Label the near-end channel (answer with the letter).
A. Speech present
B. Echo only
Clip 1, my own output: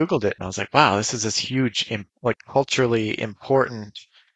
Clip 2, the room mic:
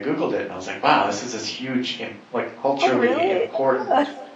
A